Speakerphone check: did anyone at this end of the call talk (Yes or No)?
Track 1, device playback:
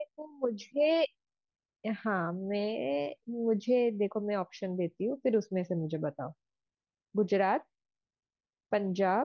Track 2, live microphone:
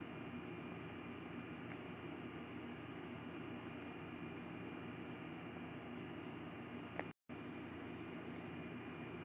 No